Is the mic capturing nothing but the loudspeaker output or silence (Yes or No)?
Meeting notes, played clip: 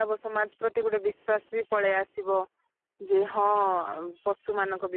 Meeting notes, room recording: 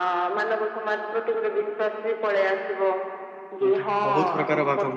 No